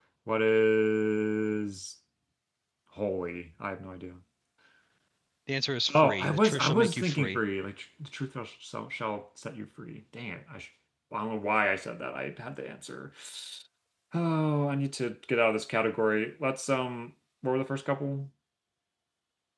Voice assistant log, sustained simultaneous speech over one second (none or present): present